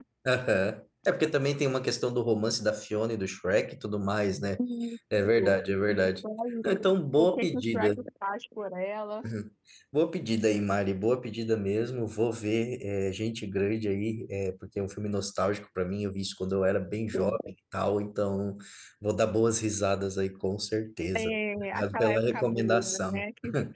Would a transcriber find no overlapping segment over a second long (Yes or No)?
No